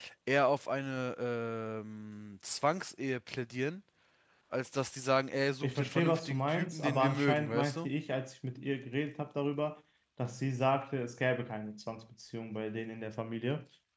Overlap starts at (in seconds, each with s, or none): 5.6 s